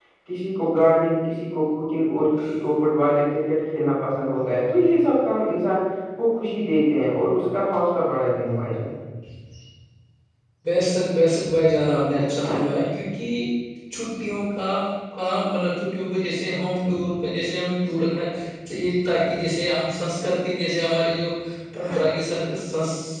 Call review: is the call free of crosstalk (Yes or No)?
Yes